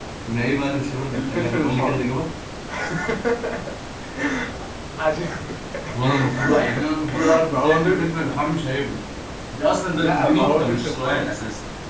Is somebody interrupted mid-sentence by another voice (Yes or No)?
Yes